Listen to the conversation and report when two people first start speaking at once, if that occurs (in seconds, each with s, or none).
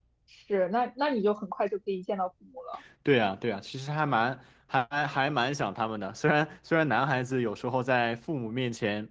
none